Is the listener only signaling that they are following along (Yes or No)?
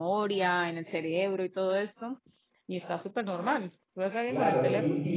No